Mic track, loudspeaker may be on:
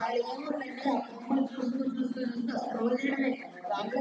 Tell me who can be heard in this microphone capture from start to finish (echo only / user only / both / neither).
echo only